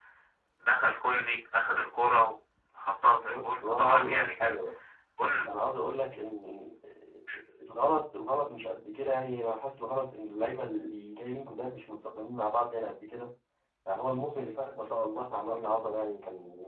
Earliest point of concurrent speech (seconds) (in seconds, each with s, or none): 3.2 s